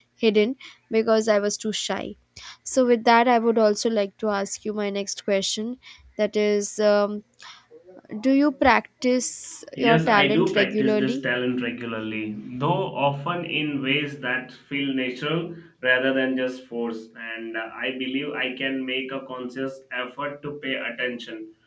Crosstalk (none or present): present